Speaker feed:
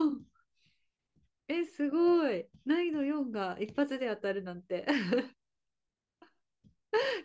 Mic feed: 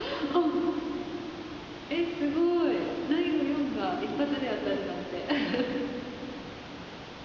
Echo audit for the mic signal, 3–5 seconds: echo only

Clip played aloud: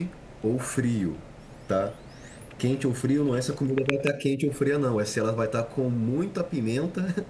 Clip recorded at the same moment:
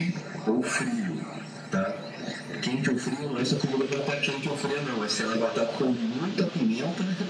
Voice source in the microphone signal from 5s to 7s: echo only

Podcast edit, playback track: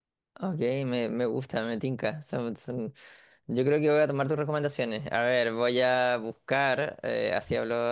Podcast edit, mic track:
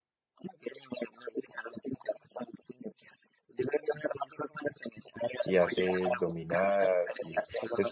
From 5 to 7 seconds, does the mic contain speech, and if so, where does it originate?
both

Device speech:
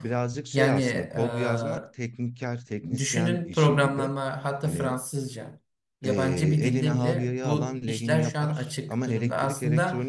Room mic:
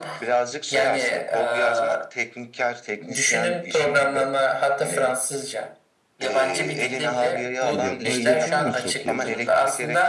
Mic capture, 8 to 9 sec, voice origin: both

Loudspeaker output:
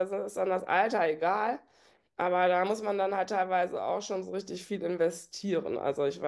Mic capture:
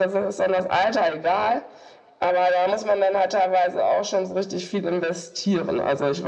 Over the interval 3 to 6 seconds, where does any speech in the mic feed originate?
echo only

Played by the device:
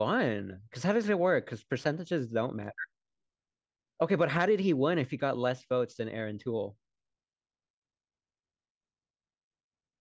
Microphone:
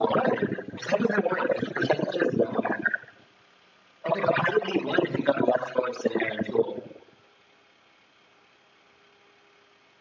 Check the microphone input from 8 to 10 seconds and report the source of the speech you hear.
neither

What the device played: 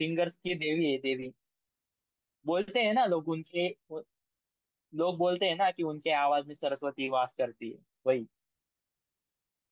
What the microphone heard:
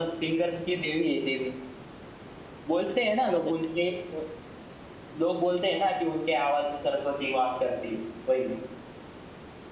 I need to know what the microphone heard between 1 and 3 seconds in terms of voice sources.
echo only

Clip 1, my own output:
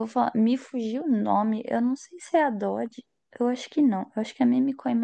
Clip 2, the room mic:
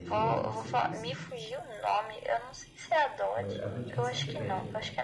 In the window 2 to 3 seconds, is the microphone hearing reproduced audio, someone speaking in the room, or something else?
echo only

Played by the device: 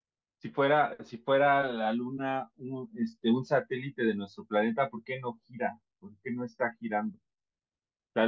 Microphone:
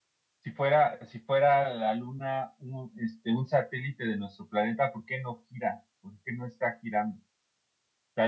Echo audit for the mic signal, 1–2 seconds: echo only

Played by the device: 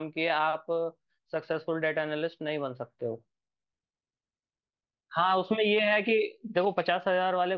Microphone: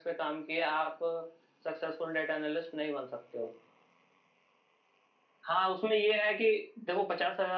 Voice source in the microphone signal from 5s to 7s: echo only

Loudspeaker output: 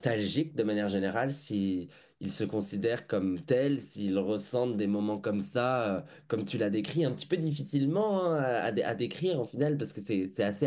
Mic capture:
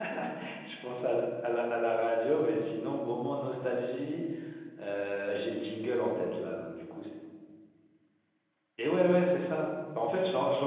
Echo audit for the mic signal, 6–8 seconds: user only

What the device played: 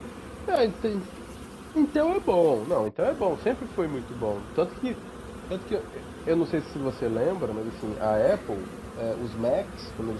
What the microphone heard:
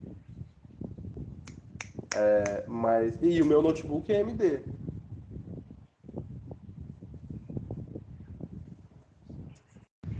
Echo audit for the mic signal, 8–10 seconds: neither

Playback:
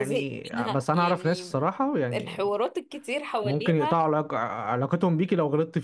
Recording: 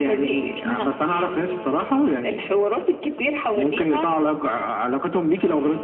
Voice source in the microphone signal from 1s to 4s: echo only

